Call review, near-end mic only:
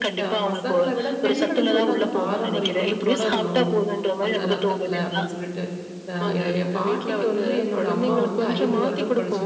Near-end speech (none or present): present